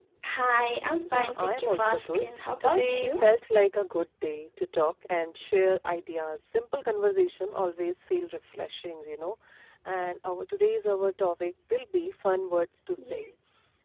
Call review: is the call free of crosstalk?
No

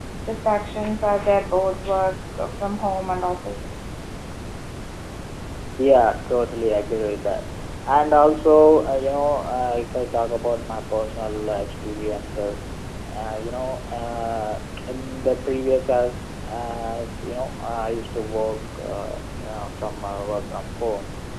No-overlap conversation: Yes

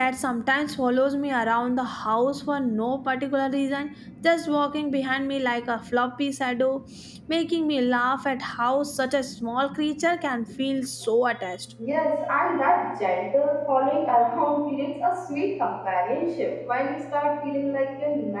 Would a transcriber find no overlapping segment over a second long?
Yes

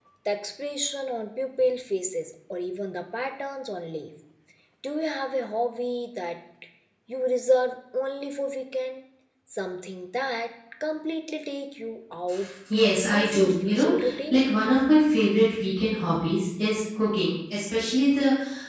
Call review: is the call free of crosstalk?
No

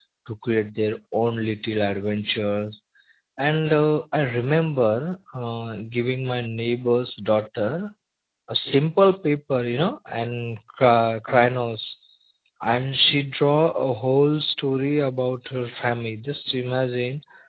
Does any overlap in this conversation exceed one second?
No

